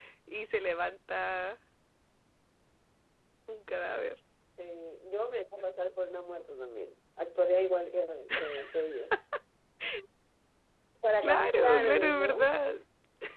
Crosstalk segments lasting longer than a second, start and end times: 11.2-12.5

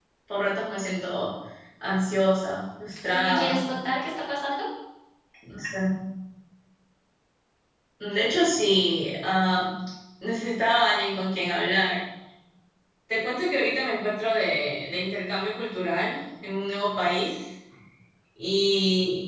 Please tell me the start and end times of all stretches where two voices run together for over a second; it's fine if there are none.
none

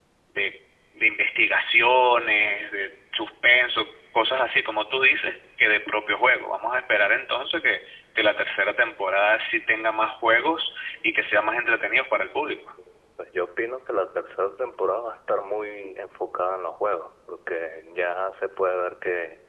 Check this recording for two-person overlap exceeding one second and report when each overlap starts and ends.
none

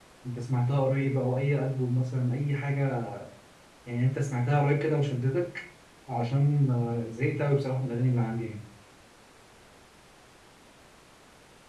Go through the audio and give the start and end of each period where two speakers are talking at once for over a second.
none

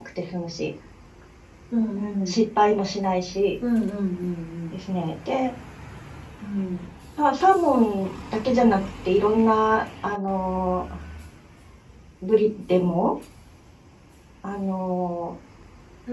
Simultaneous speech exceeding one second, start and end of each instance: none

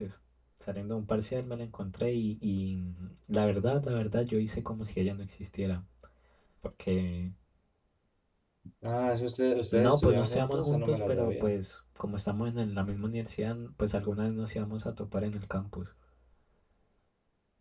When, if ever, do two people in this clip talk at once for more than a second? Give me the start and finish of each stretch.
9.7-11.6

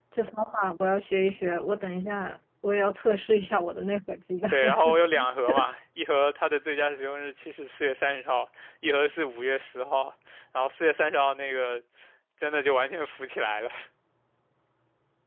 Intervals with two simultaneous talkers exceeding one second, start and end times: none

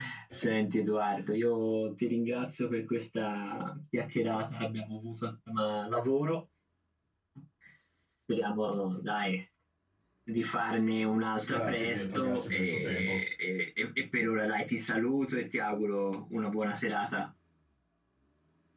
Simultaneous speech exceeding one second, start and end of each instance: 11.5-13.2

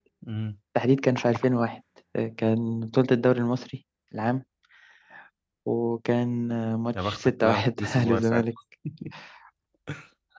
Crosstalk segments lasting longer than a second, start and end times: 7.0-8.4

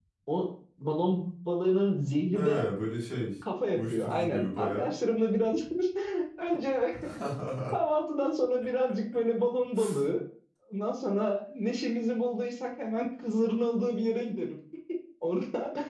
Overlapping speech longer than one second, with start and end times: 3.7-4.9

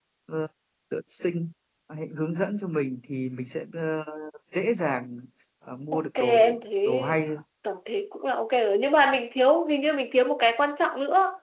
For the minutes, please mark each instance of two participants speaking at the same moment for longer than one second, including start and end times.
5.9-7.1

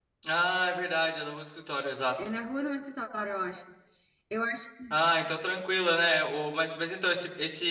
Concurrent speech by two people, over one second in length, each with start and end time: none

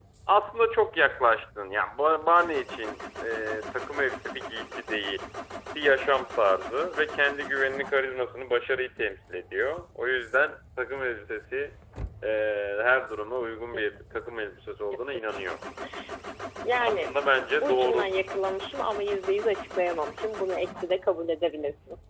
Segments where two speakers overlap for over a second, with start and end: 16.8-18.1

